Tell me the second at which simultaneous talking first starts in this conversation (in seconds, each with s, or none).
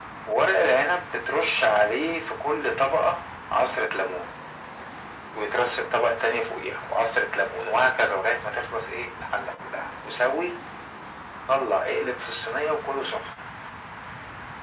none